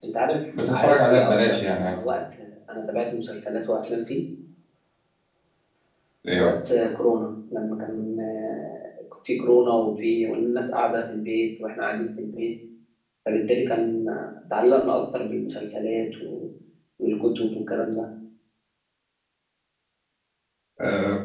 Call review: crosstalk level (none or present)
present